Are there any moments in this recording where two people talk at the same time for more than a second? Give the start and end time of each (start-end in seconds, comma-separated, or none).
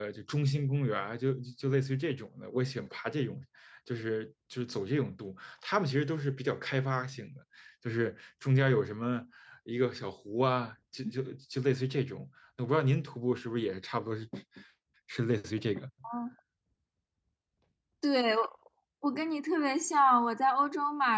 none